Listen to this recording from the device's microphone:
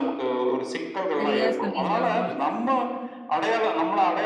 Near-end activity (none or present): present